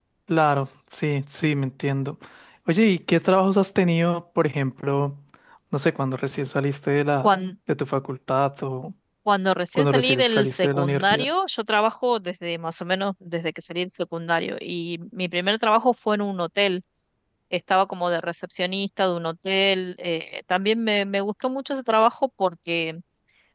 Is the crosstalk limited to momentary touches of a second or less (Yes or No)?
No